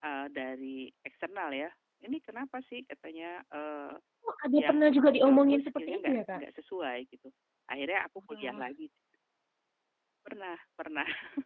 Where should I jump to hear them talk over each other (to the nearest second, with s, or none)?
5 s